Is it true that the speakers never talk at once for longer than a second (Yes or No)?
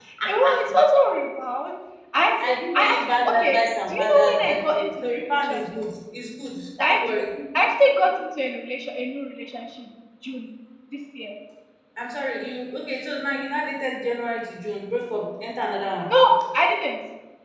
No